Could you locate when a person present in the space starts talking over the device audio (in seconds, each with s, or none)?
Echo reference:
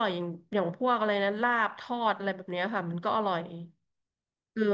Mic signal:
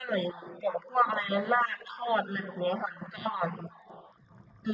none